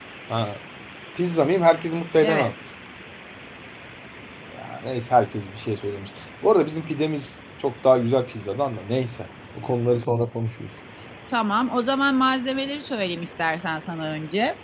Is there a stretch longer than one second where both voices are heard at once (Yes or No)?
No